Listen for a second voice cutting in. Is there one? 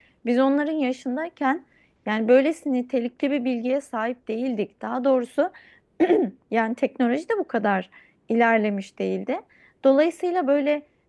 No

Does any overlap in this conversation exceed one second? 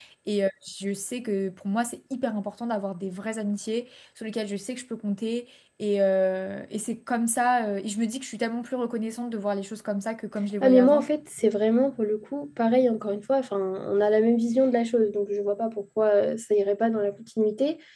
No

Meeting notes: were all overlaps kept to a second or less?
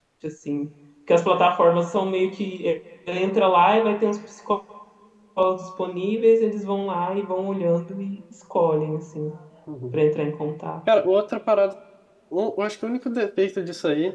Yes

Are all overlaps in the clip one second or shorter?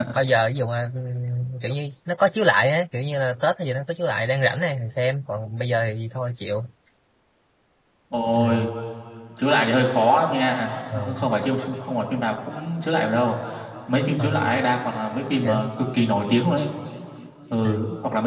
Yes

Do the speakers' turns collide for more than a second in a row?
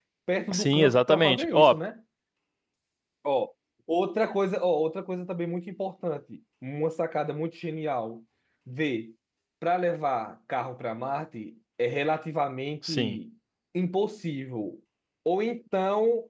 Yes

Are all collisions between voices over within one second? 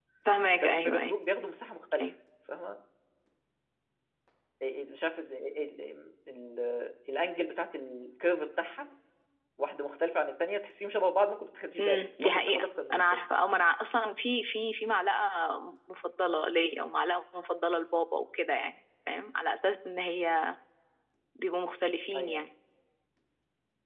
No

